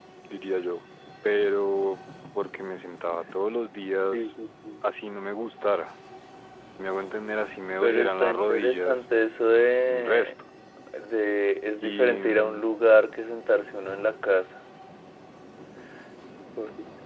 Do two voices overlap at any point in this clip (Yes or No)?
Yes